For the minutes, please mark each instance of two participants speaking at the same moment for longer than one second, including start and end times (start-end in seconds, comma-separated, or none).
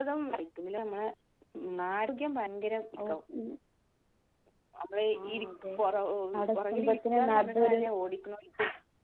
6.5-7.8